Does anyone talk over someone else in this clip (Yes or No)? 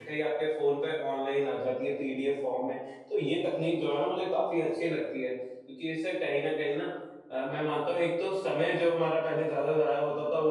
No